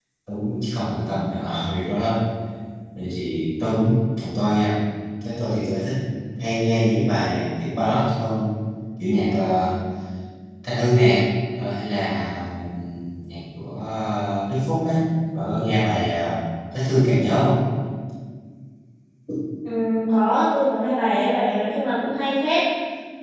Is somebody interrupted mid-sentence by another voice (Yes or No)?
No